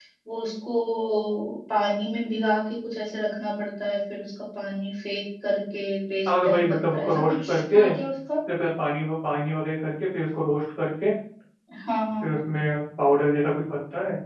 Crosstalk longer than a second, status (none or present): present